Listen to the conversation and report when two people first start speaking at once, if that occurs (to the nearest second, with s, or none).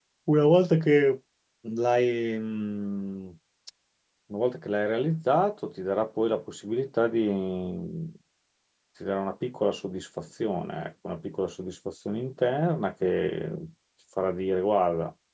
none